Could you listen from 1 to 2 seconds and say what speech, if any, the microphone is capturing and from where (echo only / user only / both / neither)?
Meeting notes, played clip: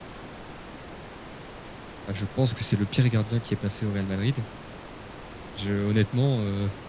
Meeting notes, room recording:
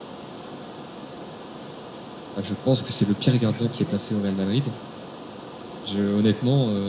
neither